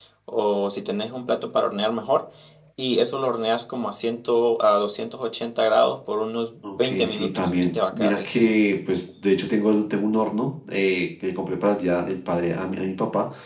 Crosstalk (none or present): present